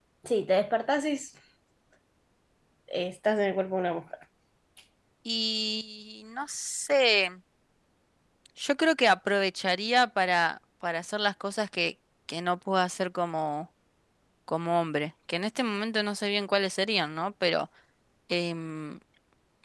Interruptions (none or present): none